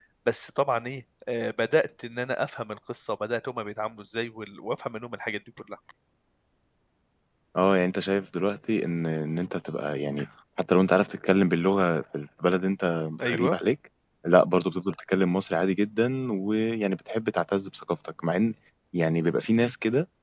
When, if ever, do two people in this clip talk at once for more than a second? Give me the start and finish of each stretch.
none

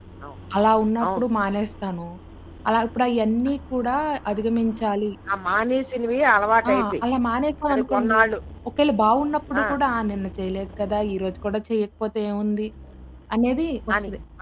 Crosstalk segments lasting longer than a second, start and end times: none

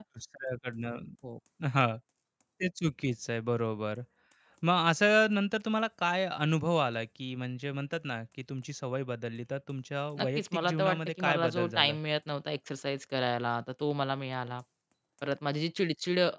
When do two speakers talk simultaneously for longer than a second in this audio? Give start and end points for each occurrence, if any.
10.2-11.9

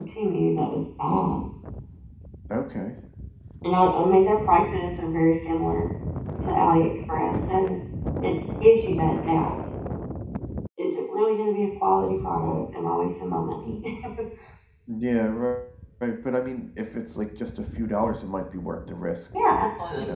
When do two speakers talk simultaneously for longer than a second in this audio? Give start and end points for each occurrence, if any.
none

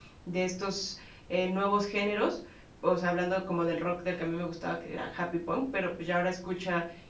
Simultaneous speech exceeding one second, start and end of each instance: none

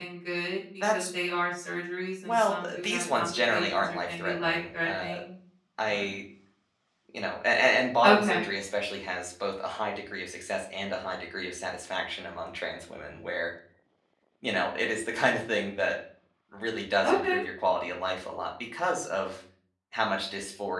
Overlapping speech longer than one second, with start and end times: 2.2-5.0

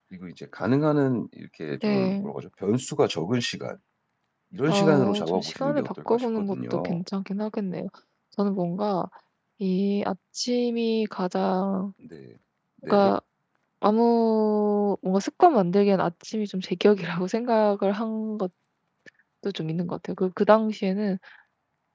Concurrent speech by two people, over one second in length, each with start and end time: 4.7-7.0

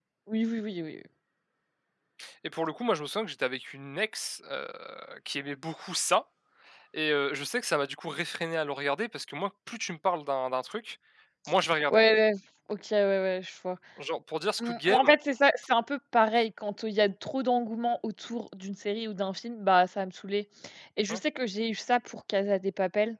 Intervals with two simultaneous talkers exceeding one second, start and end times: none

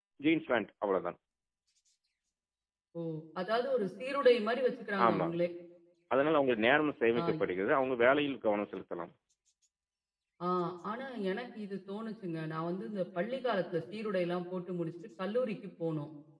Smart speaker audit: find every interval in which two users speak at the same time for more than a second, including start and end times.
none

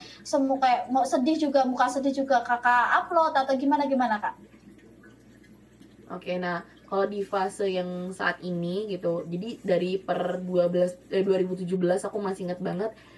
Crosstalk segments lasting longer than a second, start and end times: none

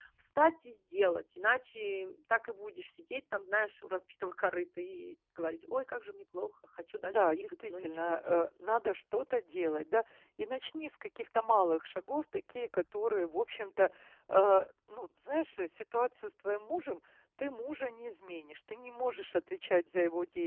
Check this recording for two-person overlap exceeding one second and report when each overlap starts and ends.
7.0-8.5

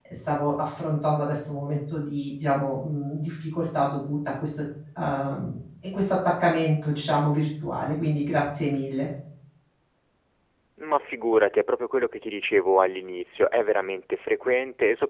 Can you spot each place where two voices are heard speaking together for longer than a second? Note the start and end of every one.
none

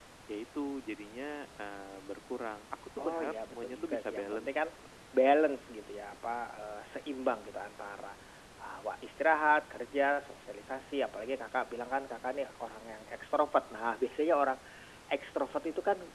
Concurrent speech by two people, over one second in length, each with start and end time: 3.0-4.5

